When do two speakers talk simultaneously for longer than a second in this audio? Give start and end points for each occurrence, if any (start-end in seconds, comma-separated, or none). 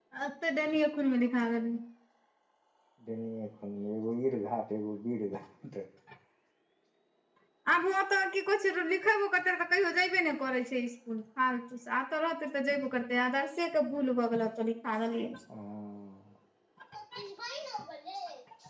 none